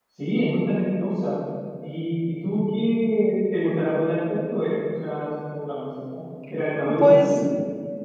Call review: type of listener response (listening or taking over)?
taking over